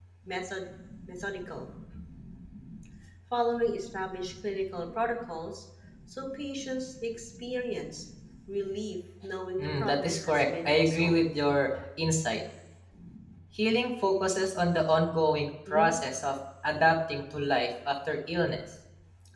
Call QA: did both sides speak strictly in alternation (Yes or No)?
No